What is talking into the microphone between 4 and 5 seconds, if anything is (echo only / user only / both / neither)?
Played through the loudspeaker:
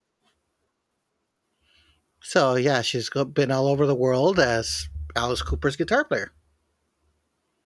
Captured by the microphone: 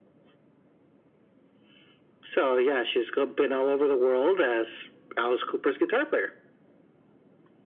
echo only